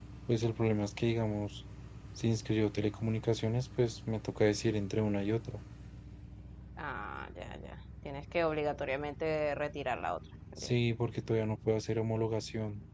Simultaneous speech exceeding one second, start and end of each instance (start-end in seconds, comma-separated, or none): none